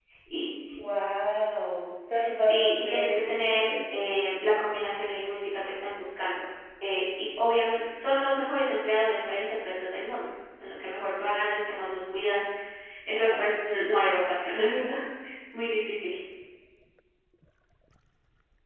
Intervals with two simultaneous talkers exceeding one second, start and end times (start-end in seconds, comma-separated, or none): 2.4-4.0